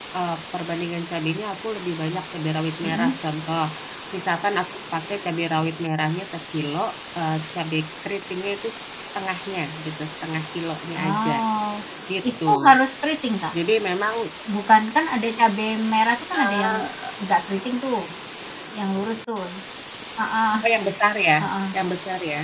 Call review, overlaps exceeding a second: none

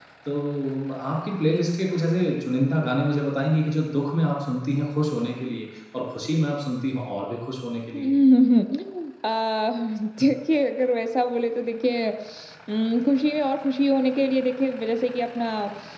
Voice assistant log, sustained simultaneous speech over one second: none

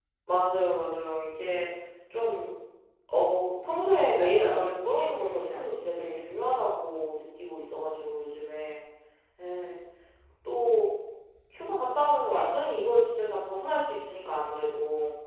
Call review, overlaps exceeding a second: present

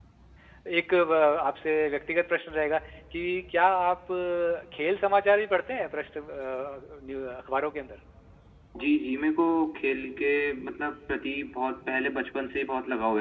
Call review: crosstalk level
none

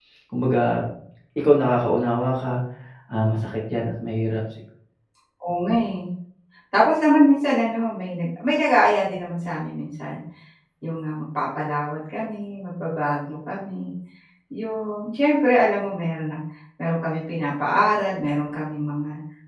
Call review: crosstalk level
none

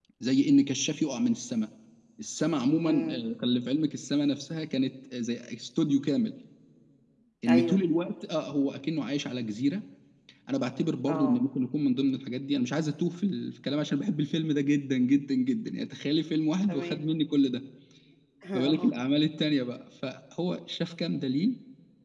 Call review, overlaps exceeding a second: none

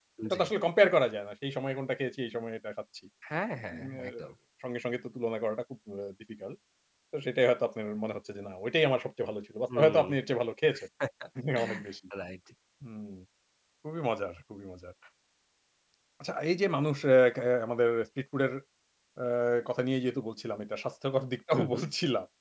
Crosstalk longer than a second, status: none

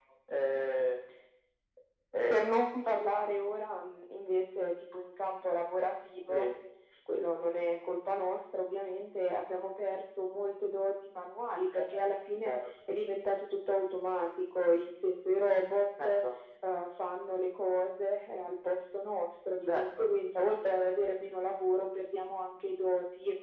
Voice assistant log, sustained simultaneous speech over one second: none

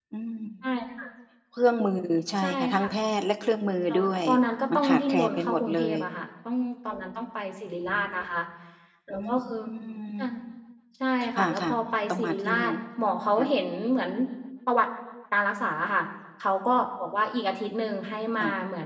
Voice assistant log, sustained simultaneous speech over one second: present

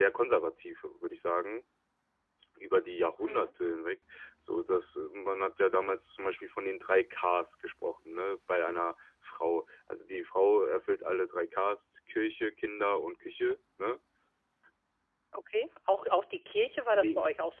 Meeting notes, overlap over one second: none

